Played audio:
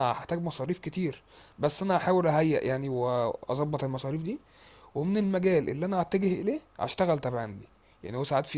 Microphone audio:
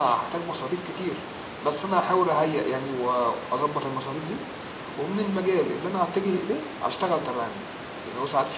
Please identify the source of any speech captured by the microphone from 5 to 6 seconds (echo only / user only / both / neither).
echo only